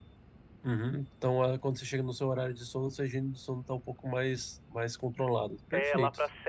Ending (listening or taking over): taking over